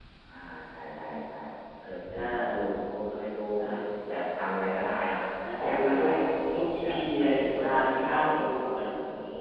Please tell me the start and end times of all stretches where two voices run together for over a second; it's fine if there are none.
6.5-8.4

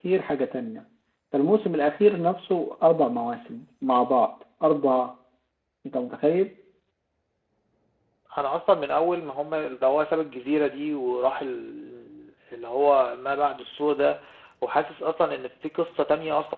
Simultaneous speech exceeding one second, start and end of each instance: none

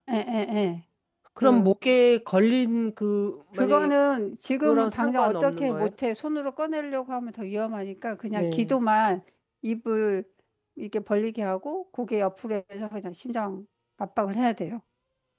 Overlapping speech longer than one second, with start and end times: 4.6-5.9

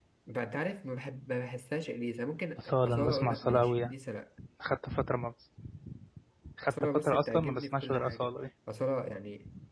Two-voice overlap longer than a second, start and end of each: 2.6-3.9, 6.6-8.4

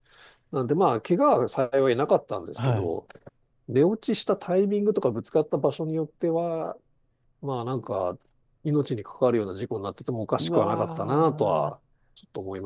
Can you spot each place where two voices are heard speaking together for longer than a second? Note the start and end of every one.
10.4-11.7

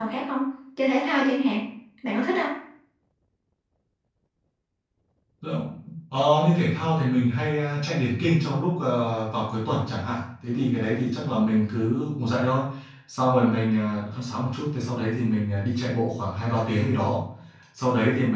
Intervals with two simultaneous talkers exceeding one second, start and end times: none

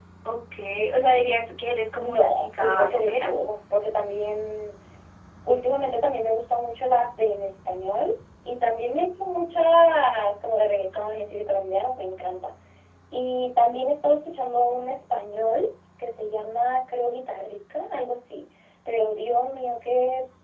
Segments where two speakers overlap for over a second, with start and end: 2.0-3.3

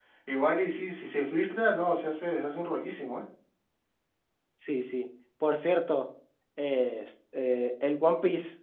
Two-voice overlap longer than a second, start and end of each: none

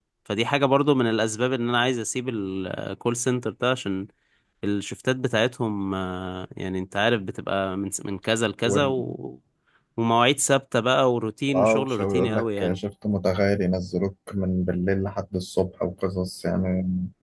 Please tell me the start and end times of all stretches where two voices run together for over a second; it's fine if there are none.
11.6-12.8

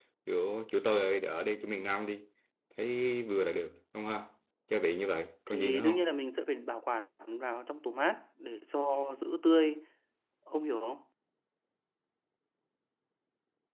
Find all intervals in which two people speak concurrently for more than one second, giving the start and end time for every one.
none

